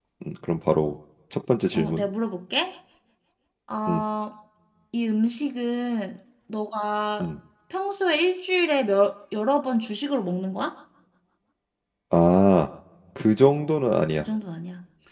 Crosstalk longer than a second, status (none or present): none